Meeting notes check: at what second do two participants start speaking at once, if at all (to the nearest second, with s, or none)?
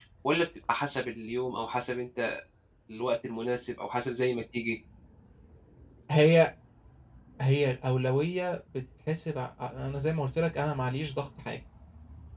none